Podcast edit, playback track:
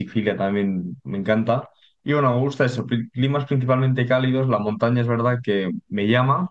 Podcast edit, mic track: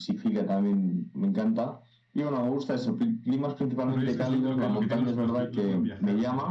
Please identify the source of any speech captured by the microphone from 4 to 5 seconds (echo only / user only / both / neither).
both